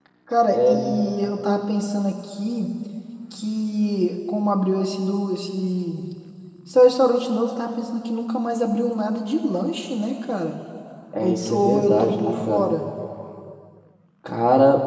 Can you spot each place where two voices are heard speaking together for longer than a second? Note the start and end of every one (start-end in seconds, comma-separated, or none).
11.2-12.7